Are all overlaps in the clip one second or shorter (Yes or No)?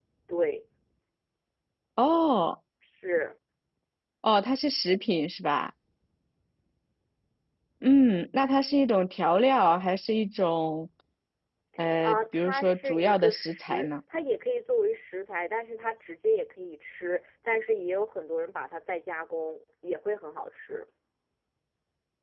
No